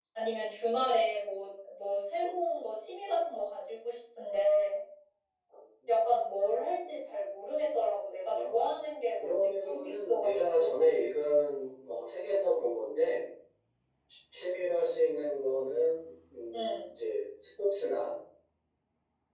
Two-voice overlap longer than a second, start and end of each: 9.2-10.9

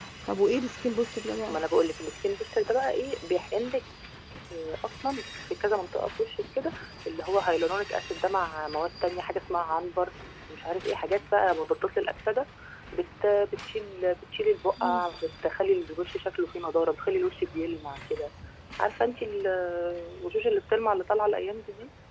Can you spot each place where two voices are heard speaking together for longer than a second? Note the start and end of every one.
none

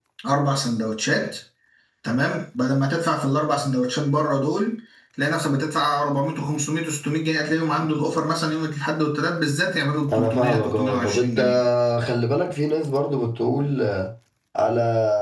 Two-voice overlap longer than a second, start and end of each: 10.1-11.4

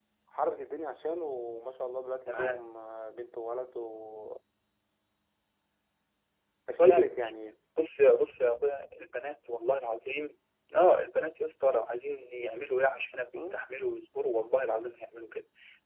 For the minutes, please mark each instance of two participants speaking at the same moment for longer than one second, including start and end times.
none

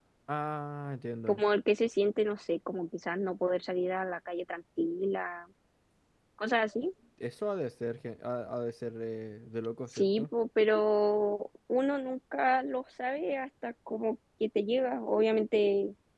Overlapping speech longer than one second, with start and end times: none

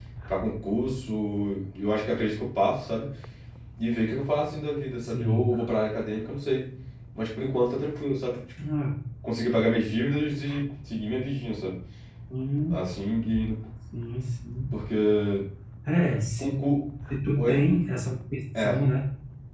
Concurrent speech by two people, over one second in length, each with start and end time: none

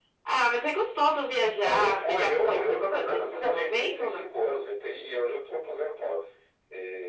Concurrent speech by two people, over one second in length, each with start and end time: 1.6-4.3

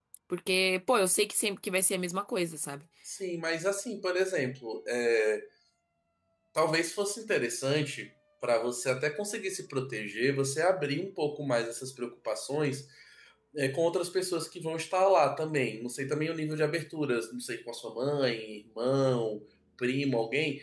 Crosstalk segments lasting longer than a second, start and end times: none

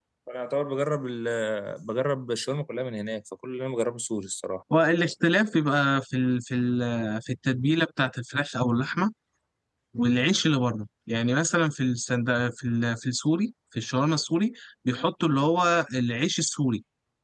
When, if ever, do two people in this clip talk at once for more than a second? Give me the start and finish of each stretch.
none

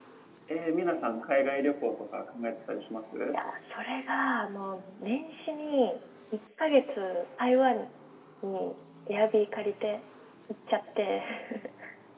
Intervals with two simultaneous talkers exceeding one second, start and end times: none

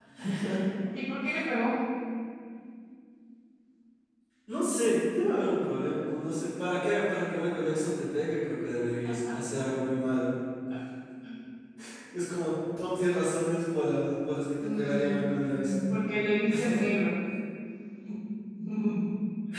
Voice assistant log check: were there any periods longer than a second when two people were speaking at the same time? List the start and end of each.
14.6-15.8

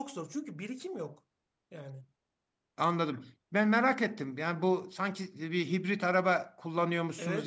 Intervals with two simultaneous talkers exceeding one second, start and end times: none

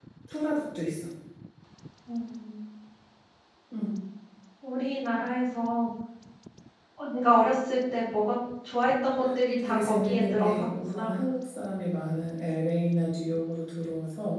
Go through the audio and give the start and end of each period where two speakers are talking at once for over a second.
9.5-11.2

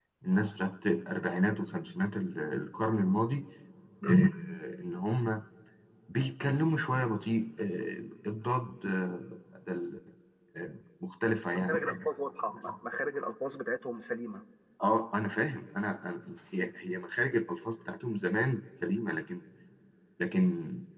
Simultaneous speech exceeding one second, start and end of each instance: none

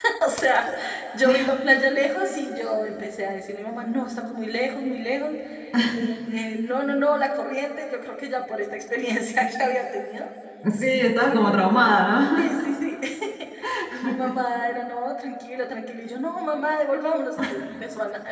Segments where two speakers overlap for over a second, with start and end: none

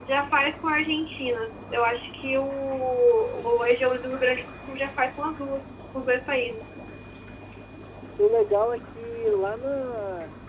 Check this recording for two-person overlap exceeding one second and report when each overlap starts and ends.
none

